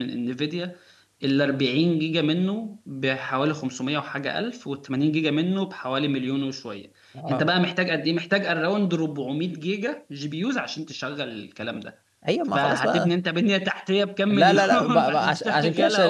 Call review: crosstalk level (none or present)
present